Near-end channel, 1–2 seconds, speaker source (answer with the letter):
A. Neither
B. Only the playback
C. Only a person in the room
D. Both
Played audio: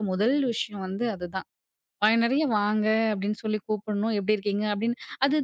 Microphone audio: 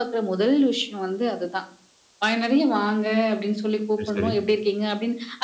B